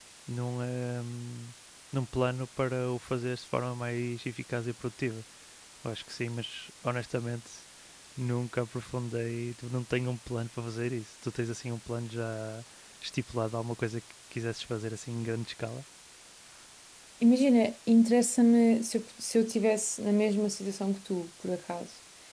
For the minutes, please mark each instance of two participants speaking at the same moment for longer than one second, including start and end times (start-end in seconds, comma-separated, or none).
none